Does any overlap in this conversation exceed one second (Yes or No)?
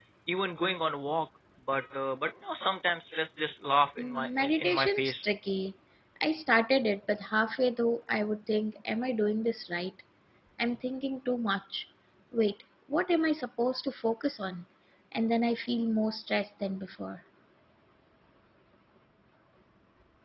Yes